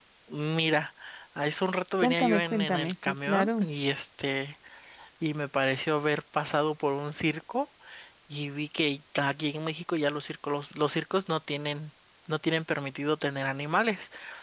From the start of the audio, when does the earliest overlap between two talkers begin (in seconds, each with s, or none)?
2.0 s